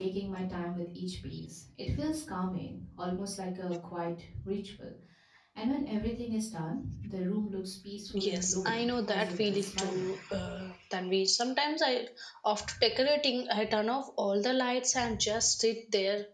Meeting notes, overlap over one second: present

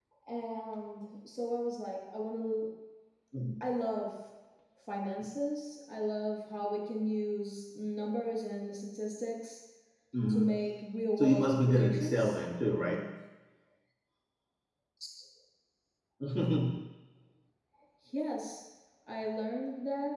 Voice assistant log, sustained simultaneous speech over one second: present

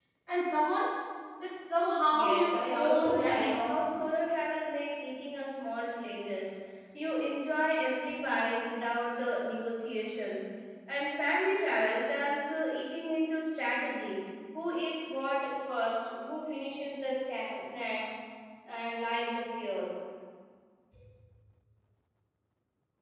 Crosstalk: present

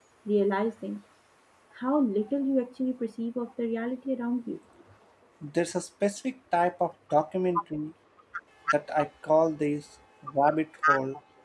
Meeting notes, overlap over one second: none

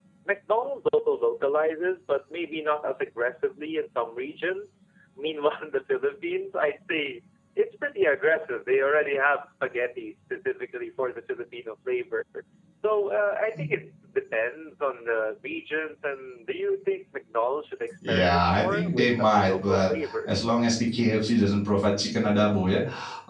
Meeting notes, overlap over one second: present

